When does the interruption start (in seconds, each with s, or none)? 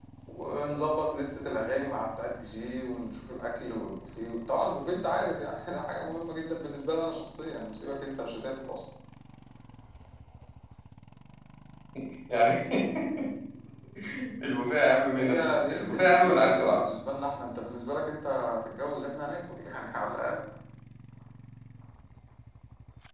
15.2 s